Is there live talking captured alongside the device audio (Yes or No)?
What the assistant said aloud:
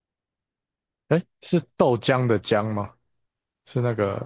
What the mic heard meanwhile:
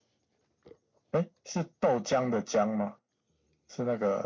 No